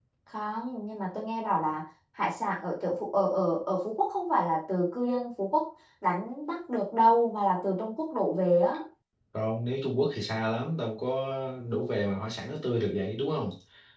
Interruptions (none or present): none